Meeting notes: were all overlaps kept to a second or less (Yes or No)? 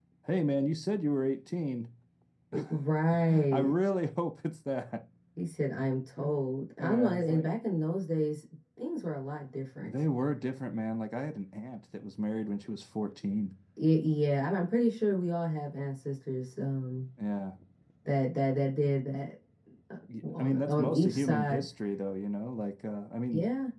No